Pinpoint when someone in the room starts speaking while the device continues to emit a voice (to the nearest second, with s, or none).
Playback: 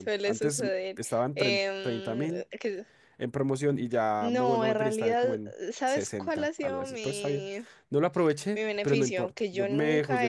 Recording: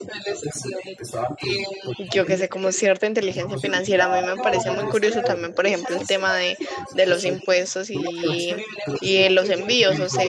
2 s